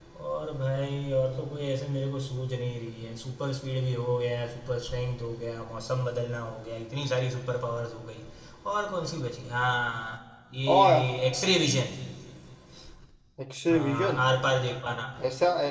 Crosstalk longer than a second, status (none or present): none